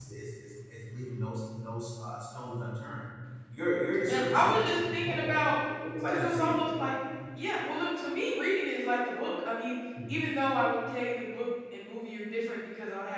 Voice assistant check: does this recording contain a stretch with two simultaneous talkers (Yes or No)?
Yes